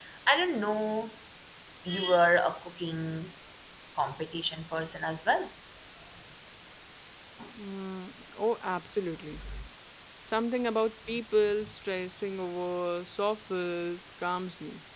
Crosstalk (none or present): none